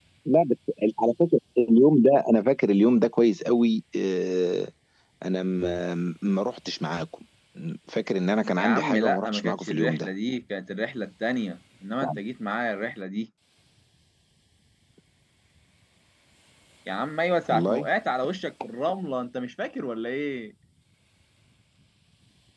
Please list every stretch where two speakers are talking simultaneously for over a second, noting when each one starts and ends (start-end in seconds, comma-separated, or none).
8.6-10.1